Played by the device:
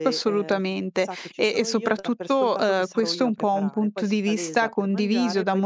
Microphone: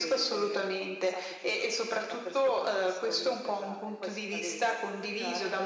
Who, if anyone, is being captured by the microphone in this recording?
echo only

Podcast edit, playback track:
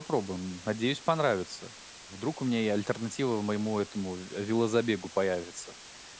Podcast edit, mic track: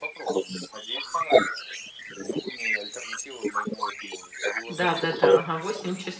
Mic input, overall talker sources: both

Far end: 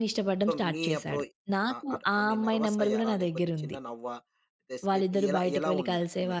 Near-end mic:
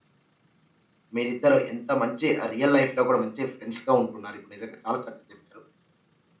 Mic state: user only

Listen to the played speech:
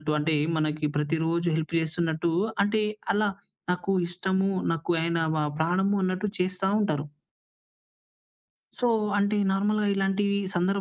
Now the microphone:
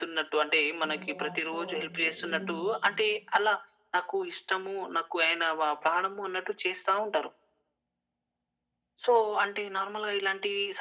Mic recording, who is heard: both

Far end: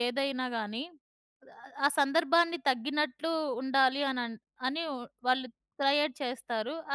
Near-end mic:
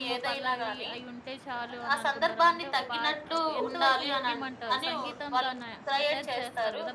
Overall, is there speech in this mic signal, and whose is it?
both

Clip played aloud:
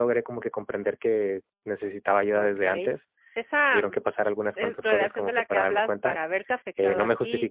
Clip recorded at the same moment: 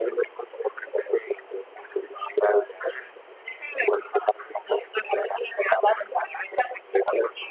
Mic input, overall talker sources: echo only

